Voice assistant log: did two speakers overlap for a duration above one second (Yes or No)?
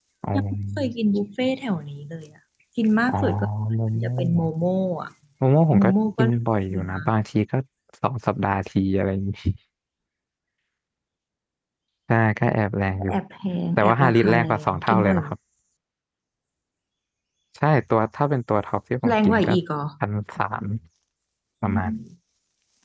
Yes